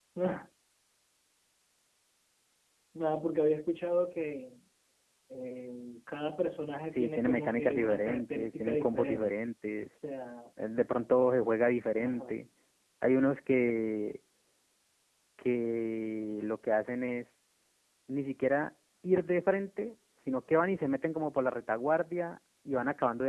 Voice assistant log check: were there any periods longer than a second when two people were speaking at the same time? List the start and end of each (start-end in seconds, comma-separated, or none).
6.9-9.3